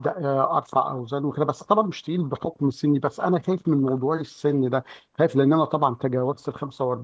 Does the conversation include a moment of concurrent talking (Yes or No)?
No